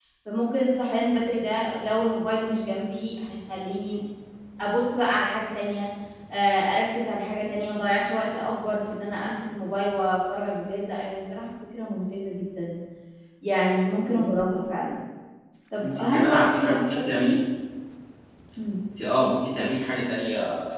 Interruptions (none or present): present